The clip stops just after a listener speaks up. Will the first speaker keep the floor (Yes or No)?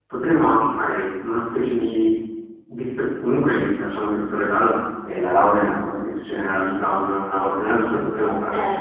Yes